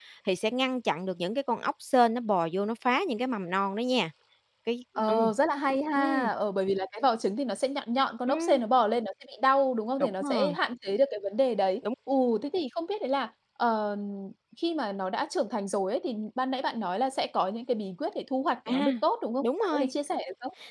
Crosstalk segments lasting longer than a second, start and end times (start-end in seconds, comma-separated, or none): none